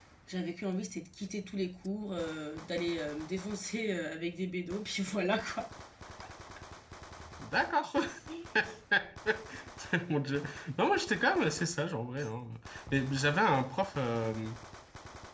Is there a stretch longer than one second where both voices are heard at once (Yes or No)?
No